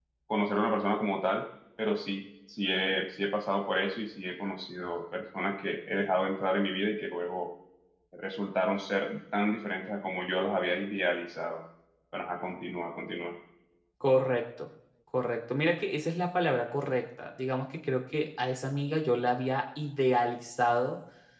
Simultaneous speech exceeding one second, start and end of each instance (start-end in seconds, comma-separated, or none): none